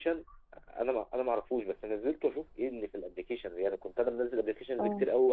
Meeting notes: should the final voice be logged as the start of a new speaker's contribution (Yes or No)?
No